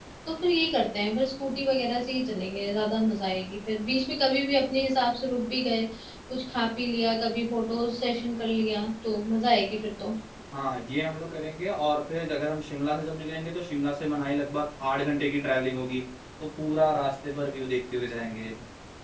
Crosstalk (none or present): none